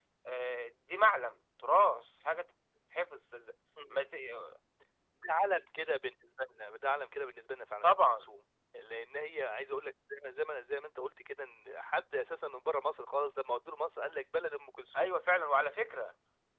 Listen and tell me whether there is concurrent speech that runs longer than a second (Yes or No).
No